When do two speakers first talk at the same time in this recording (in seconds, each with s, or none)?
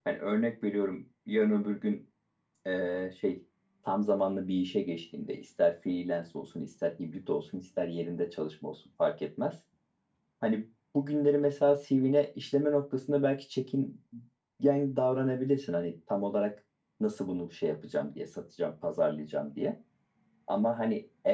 none